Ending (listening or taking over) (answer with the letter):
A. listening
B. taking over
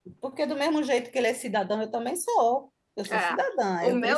B